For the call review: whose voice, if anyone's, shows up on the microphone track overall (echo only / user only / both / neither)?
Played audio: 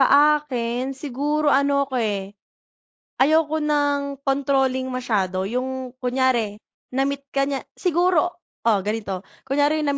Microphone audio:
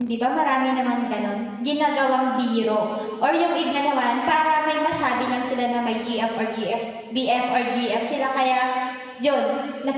user only